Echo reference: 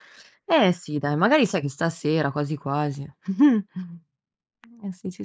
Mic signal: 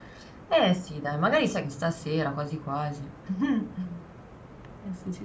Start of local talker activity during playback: none

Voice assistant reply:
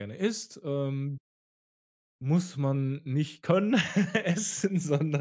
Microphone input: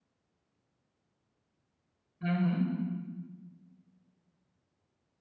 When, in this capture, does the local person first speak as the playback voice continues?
2.2 s

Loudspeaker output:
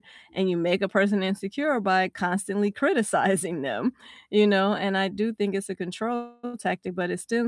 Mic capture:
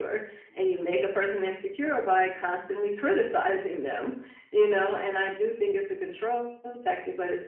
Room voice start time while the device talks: none

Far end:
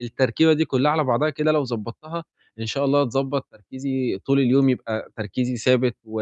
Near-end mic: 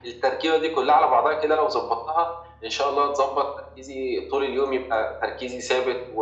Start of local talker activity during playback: none

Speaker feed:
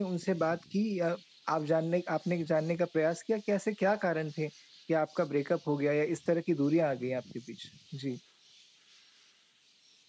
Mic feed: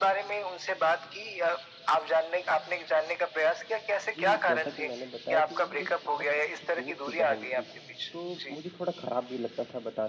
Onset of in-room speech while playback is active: 4.2 s

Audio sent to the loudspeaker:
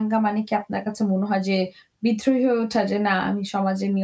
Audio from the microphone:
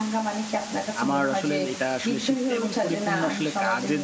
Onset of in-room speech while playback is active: 1.0 s

